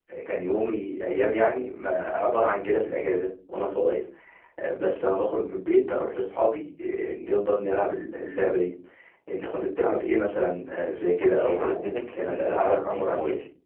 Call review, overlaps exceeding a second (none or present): present